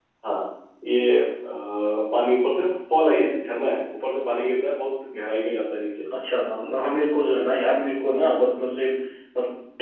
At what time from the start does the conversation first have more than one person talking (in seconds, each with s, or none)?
none